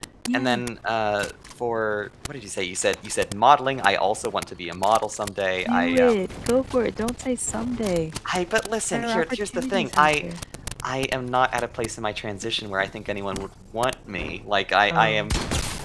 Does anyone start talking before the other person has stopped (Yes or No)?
Yes